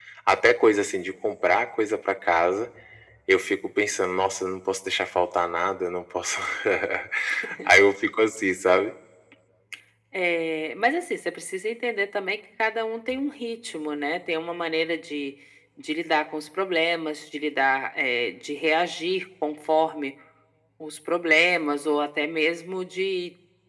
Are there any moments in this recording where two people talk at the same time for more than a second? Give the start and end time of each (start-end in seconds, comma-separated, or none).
none